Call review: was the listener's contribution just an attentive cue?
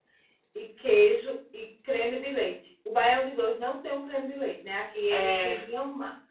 Yes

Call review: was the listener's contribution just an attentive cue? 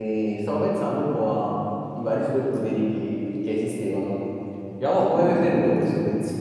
Yes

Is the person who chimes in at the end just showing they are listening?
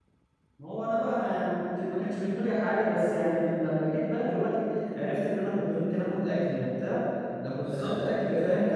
Yes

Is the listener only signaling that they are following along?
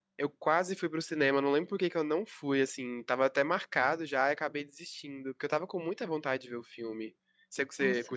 No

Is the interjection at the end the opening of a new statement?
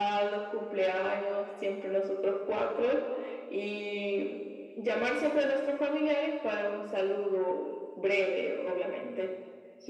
Yes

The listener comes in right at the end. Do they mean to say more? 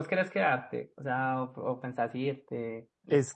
Yes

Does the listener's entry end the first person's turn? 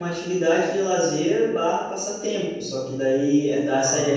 No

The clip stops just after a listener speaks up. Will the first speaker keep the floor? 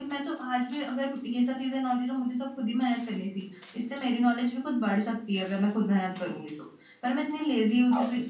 Yes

